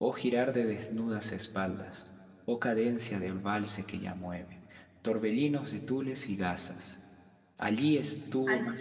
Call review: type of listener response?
listening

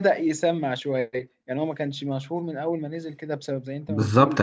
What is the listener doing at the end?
taking over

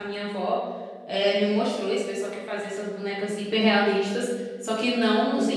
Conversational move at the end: listening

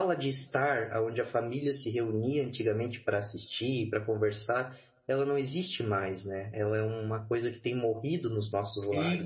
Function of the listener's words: taking over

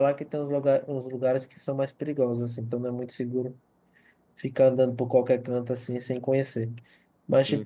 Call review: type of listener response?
listening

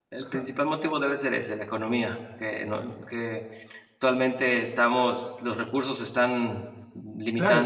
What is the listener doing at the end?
taking over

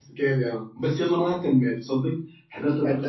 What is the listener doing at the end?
listening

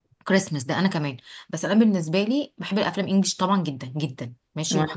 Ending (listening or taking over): listening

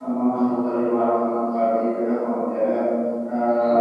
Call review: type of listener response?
taking over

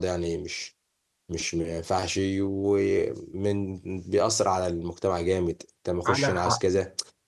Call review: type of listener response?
listening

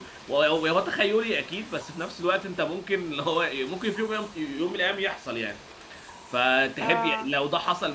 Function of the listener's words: listening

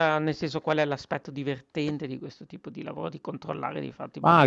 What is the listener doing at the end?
taking over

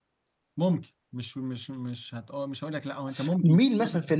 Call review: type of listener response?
taking over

